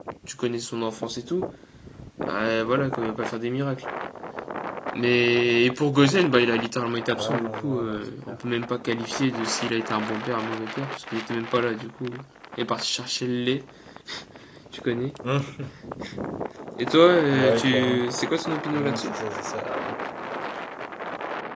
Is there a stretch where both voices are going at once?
Yes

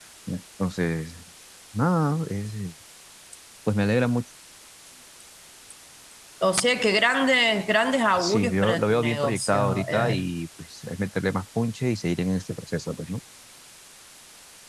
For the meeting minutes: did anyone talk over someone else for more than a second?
Yes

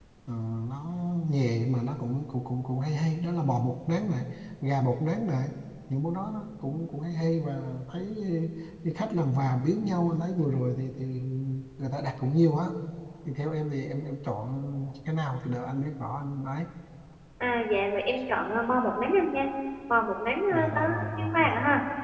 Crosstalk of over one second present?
Yes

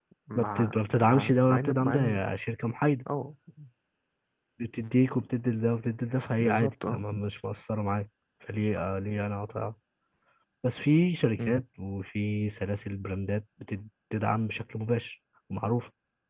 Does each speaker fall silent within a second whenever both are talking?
No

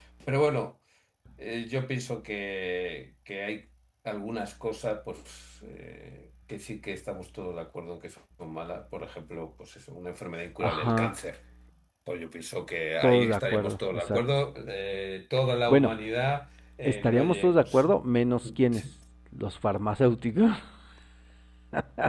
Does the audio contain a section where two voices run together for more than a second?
Yes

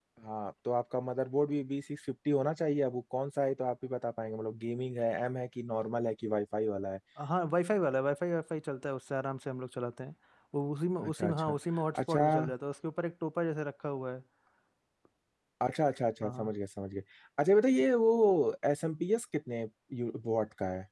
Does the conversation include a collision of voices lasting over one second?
No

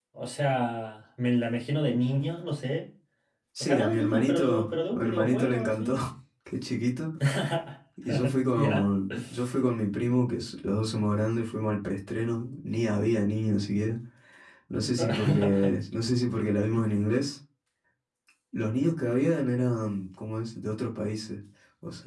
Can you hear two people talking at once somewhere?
Yes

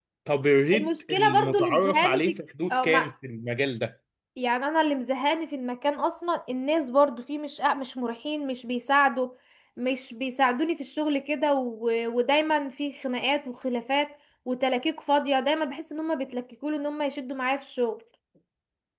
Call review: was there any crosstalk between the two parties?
Yes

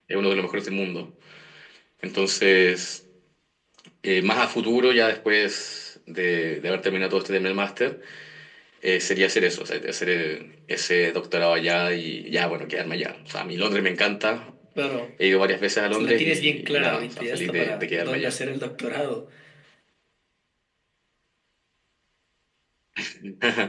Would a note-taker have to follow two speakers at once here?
Yes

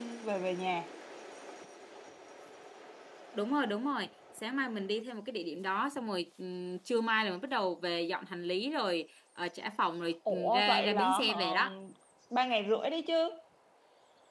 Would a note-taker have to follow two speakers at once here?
Yes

